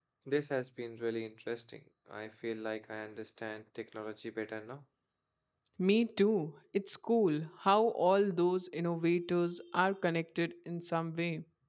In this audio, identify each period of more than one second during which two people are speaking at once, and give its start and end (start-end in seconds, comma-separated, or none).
none